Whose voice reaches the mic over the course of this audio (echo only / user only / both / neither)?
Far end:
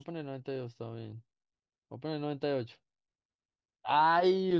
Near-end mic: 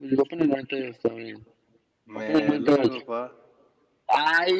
both